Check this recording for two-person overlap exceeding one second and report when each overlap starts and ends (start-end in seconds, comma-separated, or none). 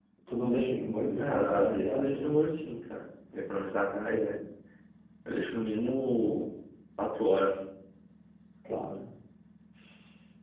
1.2-2.4